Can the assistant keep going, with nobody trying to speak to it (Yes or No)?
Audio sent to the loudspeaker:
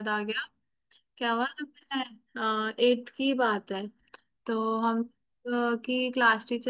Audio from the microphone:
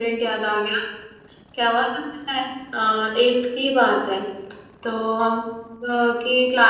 Yes